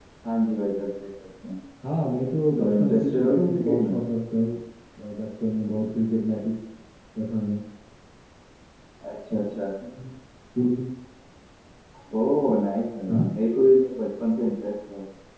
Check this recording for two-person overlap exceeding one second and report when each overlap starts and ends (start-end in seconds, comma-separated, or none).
2.6-3.9